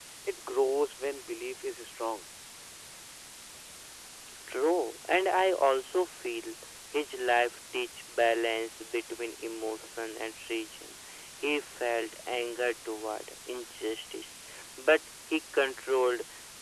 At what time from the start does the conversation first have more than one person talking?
none

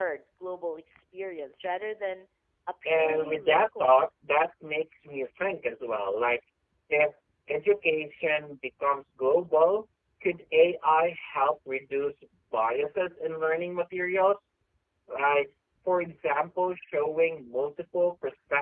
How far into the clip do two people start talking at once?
2.9 s

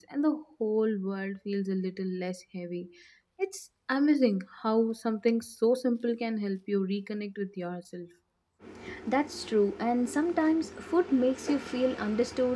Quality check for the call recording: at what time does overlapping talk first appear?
none

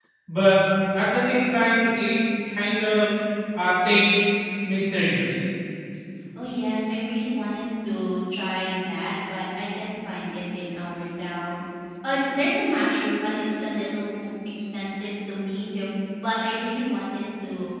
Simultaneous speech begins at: none

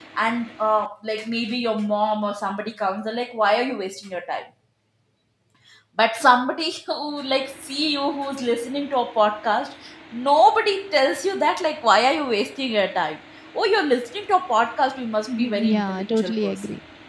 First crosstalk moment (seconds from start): 15.3 s

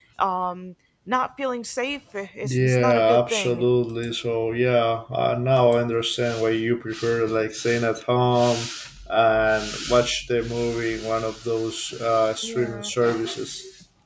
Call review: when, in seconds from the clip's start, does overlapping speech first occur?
2.4 s

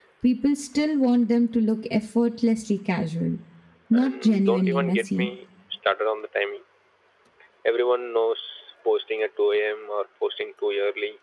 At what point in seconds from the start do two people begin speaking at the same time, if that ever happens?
4.0 s

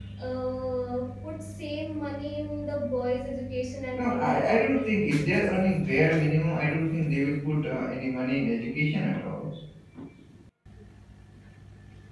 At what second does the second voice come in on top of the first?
3.9 s

